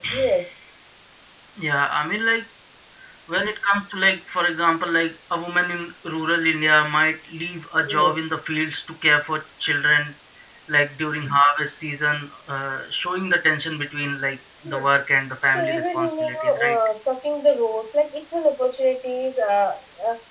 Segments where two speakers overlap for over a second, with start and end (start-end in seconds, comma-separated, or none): 15.5-16.8